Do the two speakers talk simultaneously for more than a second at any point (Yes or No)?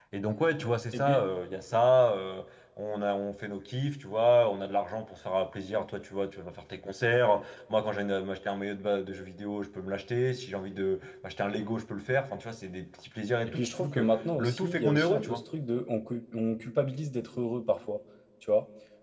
Yes